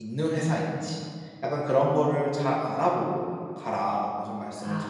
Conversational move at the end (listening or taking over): taking over